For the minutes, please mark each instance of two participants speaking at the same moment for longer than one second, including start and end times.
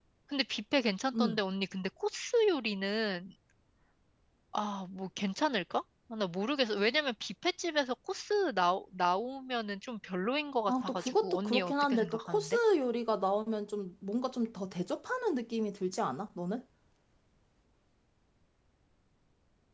10.7-12.6

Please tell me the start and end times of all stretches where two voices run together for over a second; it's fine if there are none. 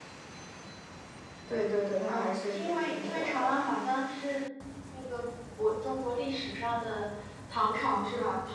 2.1-3.5

